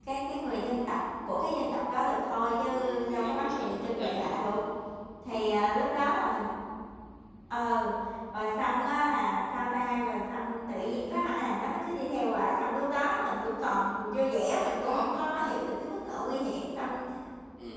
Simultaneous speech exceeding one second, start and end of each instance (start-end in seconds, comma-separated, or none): 2.7-4.4